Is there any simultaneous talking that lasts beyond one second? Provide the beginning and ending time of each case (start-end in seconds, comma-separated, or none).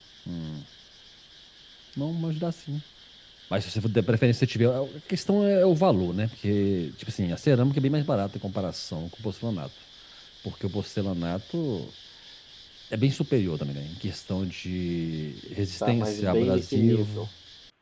15.8-17.3